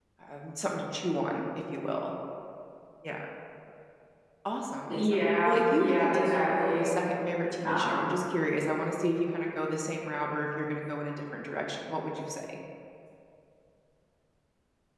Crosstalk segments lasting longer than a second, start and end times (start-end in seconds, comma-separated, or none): 4.9-6.2